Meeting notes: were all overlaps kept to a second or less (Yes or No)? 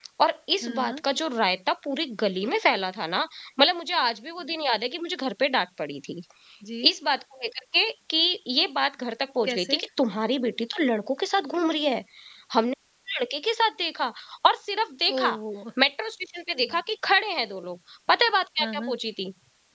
Yes